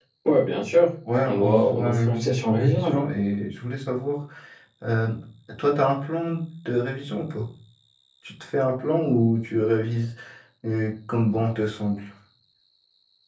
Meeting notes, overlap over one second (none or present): present